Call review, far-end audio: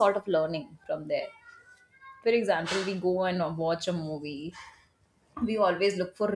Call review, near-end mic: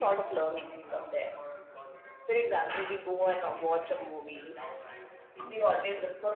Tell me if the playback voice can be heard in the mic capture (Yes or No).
Yes